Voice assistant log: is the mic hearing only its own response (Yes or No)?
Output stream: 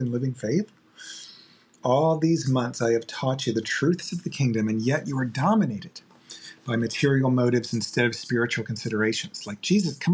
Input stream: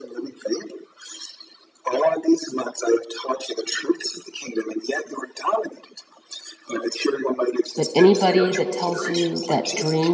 No